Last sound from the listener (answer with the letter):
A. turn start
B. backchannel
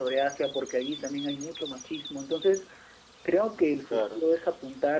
B